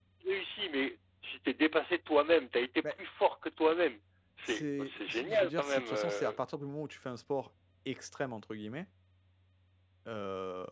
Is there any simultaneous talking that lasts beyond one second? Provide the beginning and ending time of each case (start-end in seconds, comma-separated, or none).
4.5-6.4